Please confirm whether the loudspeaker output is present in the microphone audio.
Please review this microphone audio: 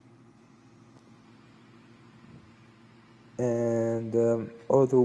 No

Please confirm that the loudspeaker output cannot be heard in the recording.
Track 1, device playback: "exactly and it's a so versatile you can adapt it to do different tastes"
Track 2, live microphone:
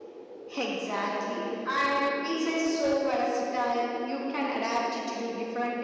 No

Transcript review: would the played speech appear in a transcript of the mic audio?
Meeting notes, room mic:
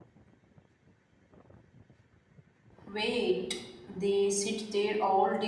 No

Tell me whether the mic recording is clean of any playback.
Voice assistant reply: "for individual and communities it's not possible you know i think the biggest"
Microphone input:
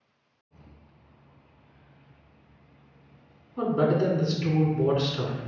Yes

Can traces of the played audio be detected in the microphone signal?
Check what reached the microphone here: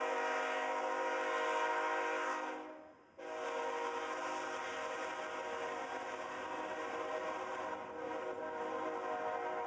No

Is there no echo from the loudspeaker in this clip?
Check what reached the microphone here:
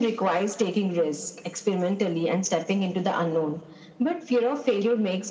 No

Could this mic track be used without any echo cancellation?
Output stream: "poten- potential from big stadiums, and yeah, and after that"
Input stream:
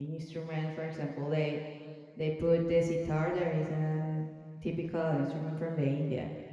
Yes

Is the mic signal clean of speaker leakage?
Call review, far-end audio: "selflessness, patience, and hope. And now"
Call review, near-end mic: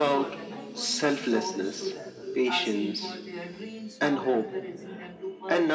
No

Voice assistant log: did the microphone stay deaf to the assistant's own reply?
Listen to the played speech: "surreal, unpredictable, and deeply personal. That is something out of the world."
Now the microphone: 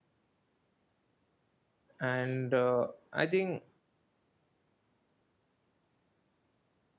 Yes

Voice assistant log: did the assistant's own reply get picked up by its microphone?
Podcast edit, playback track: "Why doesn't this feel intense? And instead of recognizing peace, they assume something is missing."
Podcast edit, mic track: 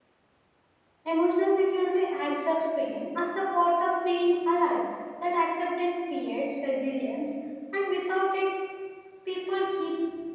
No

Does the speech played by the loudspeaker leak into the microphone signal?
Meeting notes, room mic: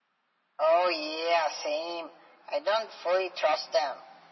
Yes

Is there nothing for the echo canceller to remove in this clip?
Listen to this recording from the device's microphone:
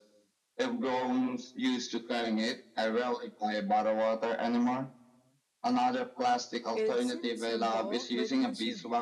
No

